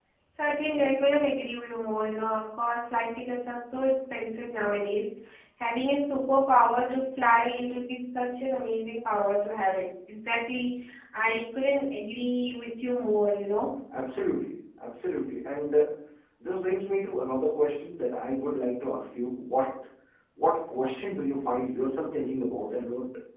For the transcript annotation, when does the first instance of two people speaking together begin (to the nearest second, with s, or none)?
none